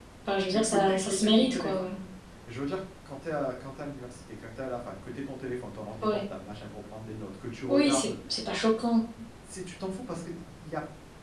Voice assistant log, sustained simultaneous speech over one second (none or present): present